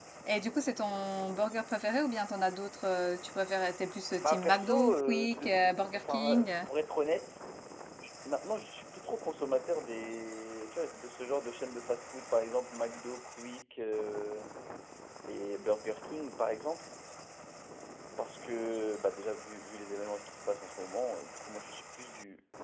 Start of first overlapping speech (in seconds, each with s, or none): 4.2 s